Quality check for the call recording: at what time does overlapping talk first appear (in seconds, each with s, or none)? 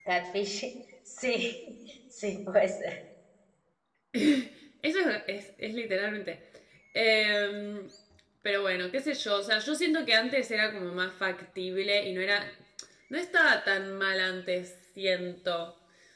none